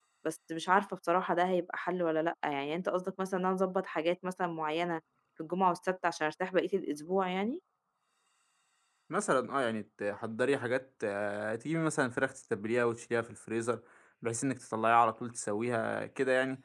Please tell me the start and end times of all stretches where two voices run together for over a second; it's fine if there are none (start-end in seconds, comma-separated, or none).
none